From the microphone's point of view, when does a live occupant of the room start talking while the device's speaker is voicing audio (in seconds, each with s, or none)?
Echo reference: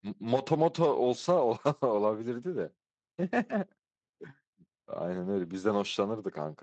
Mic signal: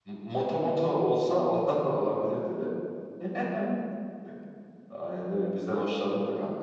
none